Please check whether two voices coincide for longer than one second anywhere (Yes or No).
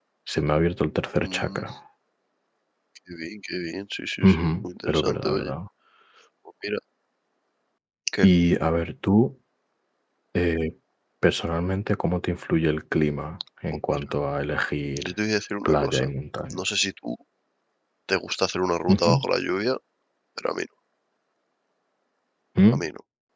Yes